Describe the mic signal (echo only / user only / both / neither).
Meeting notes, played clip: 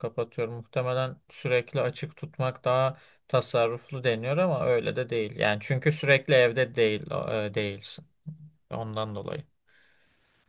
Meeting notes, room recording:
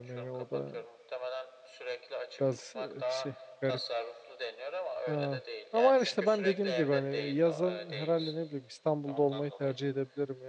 both